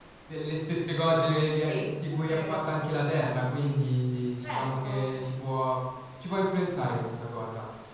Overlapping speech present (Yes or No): Yes